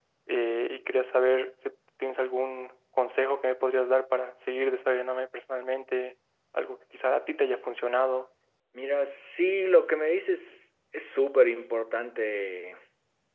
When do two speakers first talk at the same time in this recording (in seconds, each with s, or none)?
none